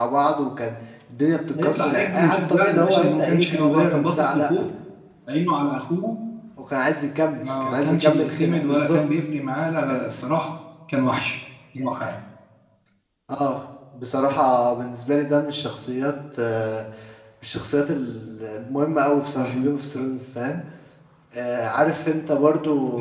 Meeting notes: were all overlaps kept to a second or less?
No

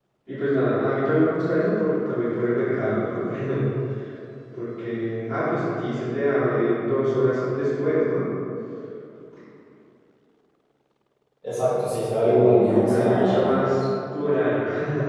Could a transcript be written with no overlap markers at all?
No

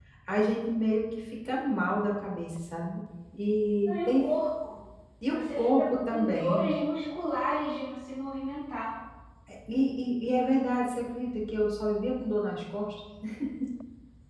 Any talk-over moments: Yes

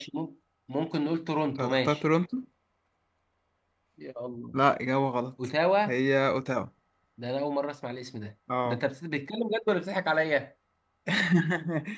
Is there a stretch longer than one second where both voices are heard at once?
No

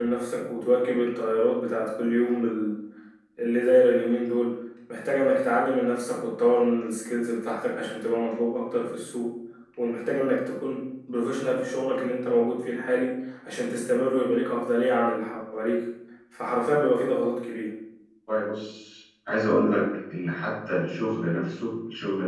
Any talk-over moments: No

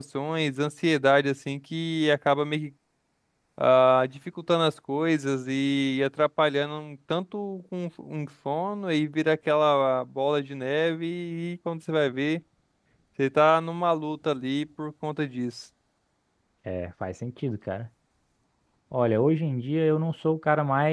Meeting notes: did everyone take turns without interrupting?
Yes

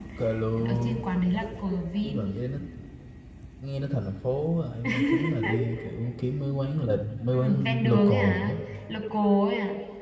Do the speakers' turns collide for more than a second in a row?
Yes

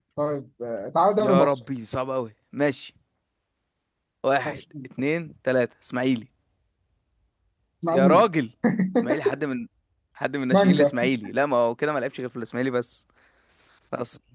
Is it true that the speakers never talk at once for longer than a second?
Yes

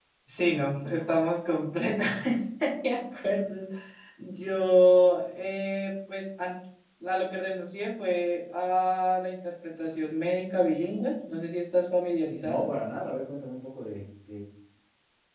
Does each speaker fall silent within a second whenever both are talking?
Yes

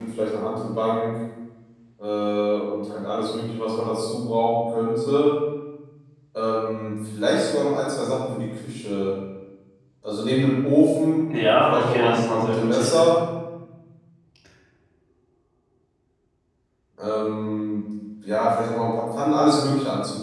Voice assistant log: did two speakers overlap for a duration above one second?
Yes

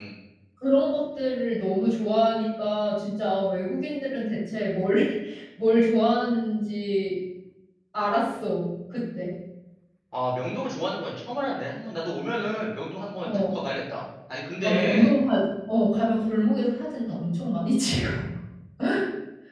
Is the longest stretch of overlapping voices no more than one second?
Yes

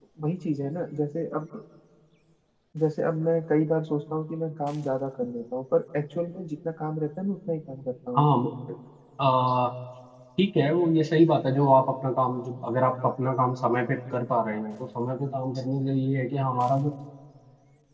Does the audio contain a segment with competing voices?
No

